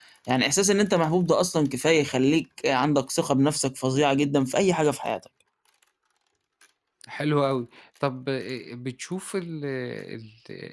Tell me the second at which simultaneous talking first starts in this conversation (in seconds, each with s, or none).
none